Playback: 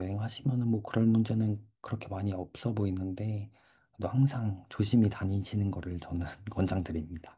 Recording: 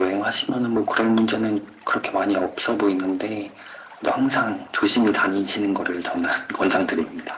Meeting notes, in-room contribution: none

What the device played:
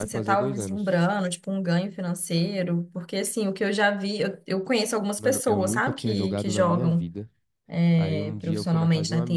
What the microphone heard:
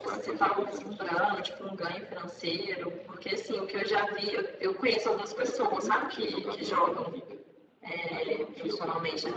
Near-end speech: none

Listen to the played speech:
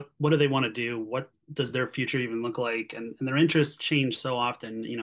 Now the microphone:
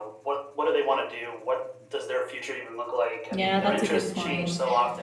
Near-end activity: present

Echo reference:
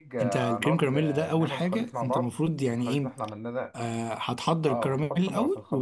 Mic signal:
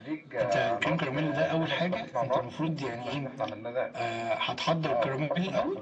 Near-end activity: none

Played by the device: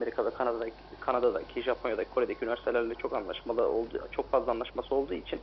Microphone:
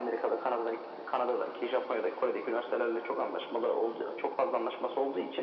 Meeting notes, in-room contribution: none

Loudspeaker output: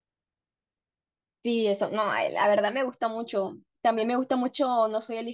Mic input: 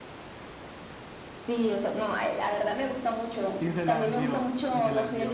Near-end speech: present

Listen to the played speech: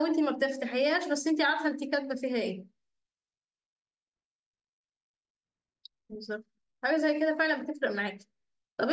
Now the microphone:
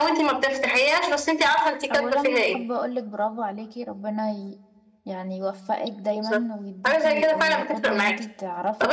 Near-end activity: present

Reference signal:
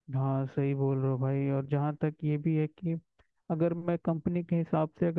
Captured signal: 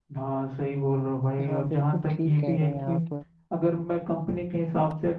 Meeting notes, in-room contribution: present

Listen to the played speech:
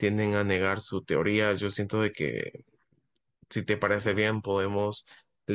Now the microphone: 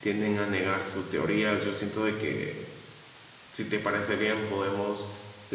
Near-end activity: none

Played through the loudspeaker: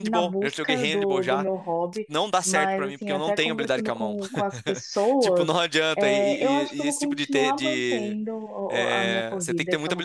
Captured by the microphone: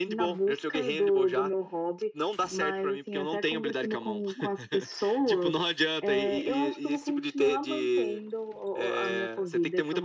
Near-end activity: none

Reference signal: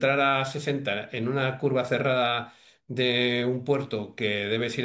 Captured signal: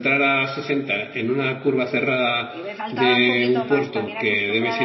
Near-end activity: present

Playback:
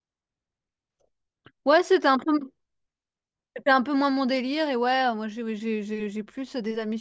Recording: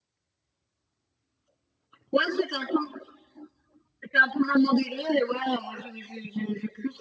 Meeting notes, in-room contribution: none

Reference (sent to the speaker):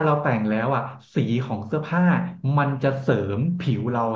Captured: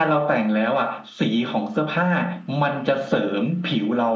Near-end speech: none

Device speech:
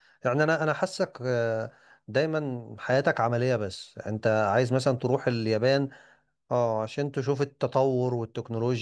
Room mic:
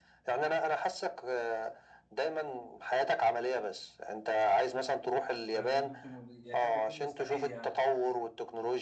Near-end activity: present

